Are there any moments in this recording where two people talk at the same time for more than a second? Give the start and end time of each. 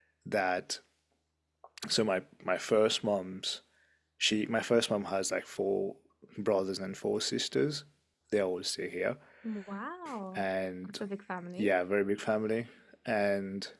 none

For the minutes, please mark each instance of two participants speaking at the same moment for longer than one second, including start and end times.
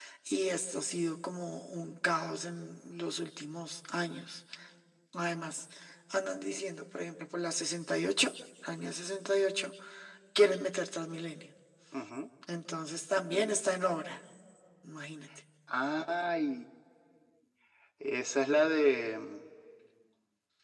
none

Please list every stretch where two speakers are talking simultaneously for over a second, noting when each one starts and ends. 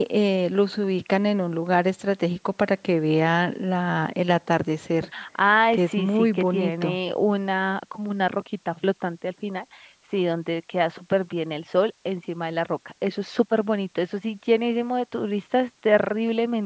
5.7-7.0

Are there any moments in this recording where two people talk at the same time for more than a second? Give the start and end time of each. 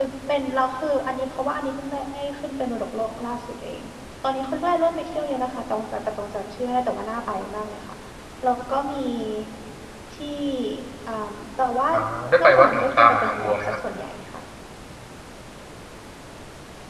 12.4-13.8

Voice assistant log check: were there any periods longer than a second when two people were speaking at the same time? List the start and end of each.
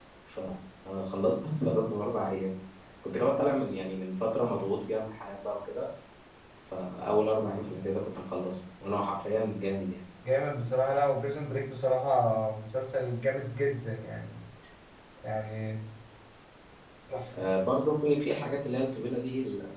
none

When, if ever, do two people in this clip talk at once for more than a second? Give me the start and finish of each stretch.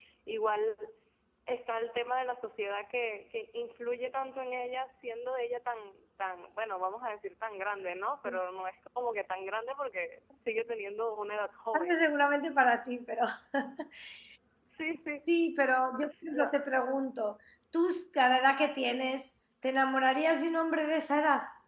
none

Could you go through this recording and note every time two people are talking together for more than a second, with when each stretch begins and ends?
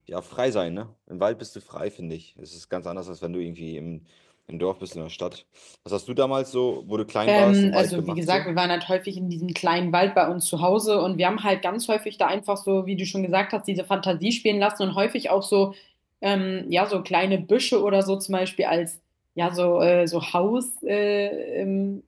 7.3-8.5

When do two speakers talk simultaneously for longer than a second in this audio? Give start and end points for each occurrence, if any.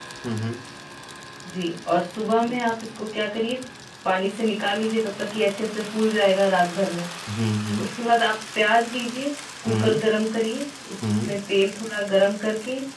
none

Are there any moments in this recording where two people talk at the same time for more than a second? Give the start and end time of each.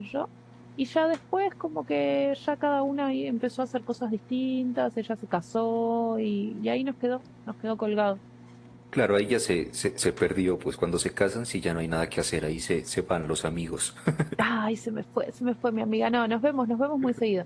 none

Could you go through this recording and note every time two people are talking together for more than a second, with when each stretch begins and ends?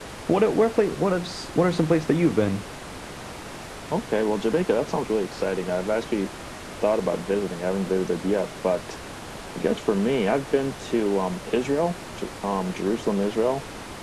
none

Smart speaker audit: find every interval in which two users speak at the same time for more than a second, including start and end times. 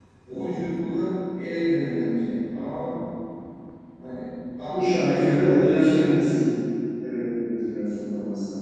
4.7-6.2

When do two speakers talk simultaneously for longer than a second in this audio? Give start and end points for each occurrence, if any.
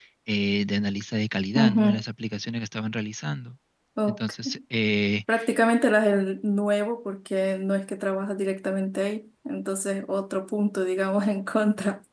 none

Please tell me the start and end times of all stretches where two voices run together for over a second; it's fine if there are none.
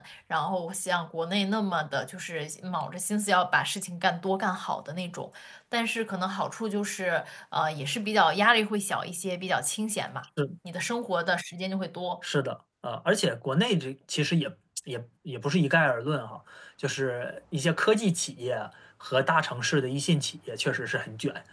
none

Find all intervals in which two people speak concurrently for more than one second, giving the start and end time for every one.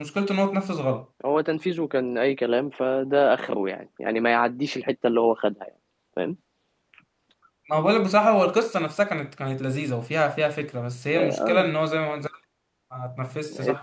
none

